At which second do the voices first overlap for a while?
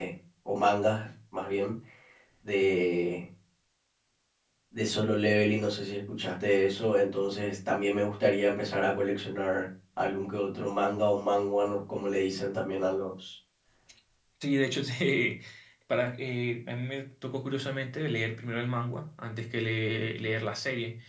none

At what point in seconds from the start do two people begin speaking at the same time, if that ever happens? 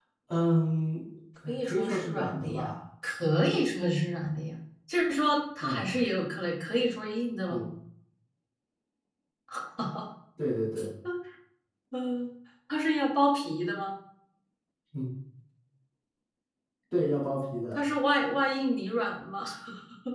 1.5 s

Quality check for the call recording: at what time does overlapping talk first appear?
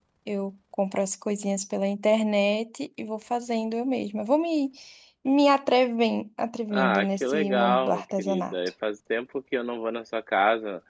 6.7 s

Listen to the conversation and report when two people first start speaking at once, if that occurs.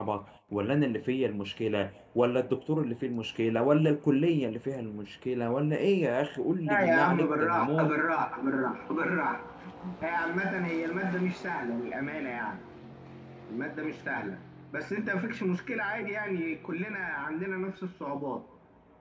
6.7 s

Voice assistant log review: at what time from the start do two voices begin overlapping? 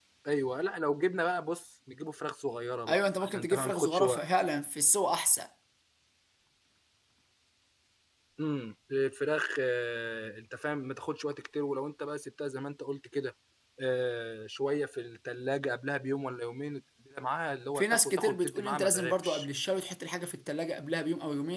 2.9 s

